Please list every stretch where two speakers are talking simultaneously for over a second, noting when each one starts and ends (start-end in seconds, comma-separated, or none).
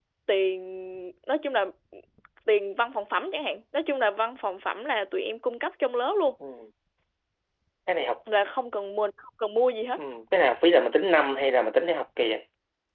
none